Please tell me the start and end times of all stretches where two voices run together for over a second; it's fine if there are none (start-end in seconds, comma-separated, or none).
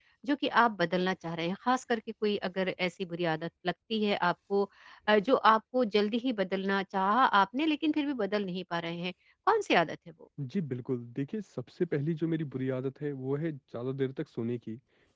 none